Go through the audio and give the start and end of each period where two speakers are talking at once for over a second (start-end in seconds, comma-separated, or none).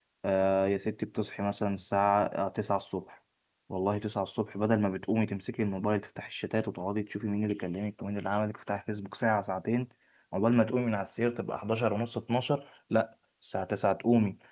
none